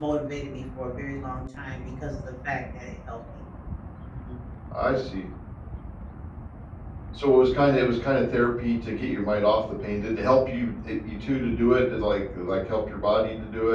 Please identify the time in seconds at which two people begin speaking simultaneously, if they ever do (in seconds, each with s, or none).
none